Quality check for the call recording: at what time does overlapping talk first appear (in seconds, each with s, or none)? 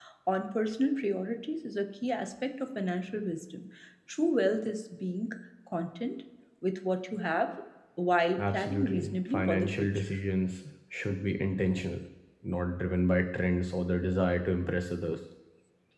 8.4 s